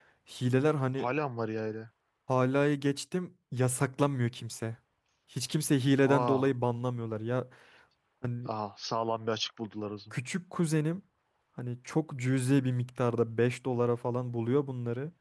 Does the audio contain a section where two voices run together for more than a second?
No

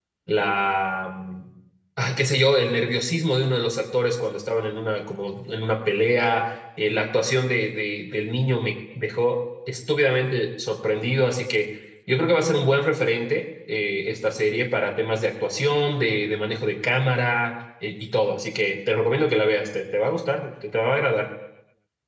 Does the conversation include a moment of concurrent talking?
No

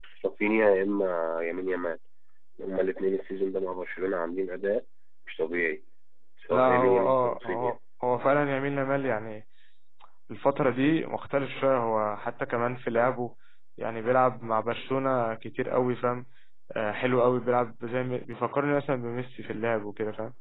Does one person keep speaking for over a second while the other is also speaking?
Yes, from 6.5 s

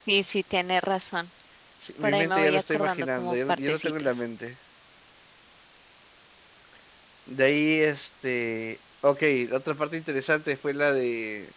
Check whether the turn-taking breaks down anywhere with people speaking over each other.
Yes, from 2.0 s

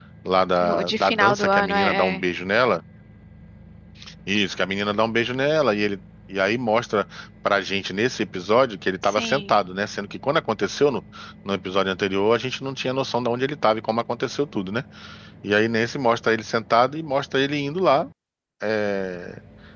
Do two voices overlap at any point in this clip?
Yes, from 0.6 s

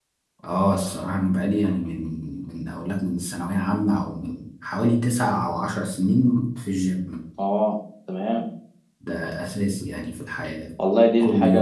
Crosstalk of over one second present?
No

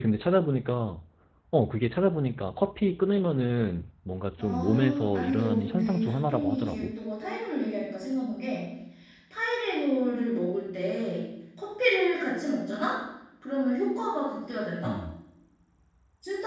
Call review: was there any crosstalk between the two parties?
Yes, from 4.4 s

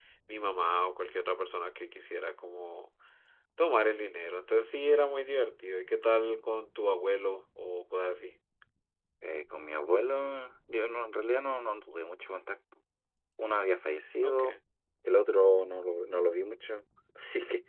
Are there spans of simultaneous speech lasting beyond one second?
No

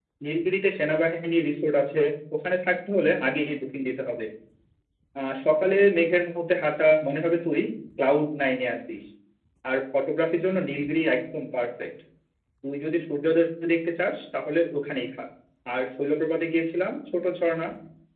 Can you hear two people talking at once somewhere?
No

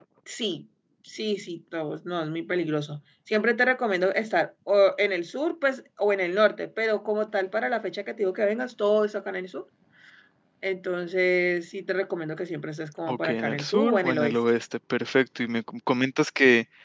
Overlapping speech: Yes, from 13.1 s

